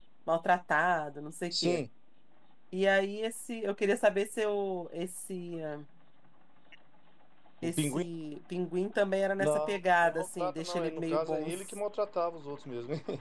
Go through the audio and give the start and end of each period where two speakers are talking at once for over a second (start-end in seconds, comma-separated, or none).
9.4-11.8